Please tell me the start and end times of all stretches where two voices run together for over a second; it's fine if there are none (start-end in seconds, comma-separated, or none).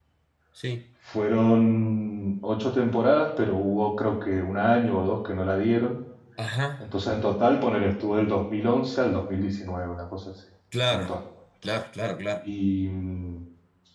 none